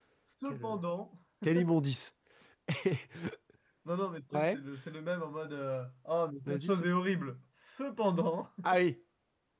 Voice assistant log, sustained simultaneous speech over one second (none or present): none